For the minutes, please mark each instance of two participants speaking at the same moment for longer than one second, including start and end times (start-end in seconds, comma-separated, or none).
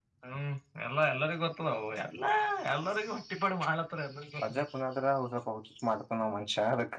none